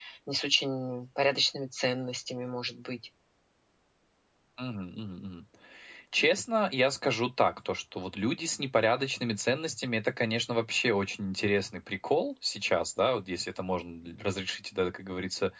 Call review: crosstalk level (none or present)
none